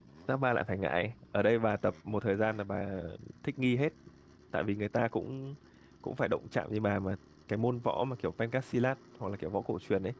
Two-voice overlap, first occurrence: none

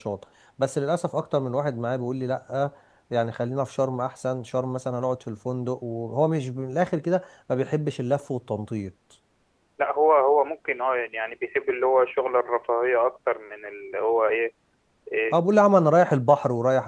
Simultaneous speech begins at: none

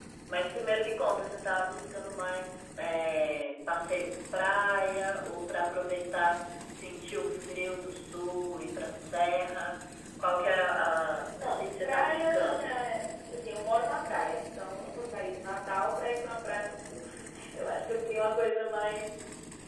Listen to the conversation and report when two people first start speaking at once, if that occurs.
11.4 s

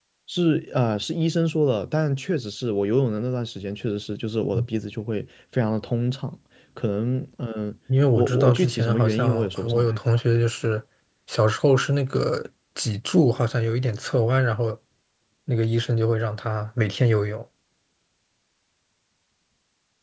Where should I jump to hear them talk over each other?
8.1 s

